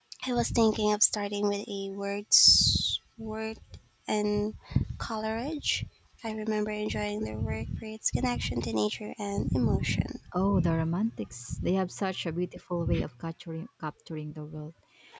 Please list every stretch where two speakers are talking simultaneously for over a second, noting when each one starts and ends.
none

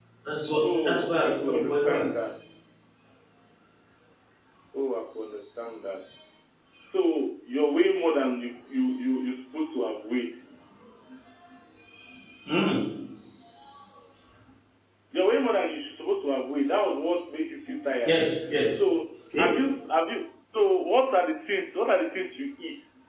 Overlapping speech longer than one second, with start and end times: 0.6-2.0

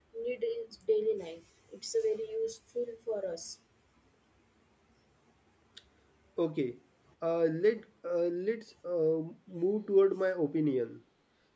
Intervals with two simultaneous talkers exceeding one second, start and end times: none

